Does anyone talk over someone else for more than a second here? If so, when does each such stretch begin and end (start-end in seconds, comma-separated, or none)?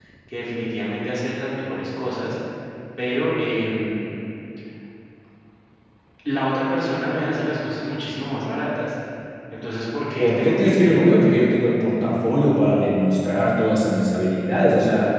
10.2-11.4